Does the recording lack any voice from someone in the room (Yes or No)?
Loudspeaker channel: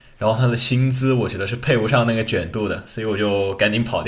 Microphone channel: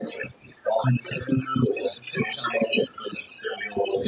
Yes